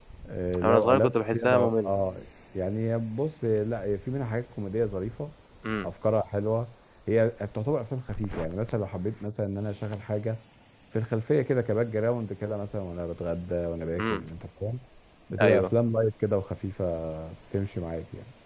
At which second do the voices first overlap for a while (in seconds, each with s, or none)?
0.6 s